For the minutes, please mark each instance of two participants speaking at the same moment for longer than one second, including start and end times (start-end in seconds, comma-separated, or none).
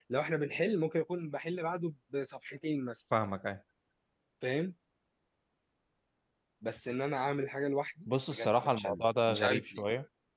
8.3-9.8